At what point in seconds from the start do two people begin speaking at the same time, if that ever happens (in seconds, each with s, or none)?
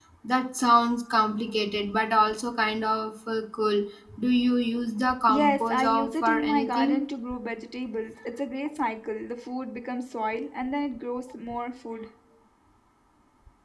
5.3 s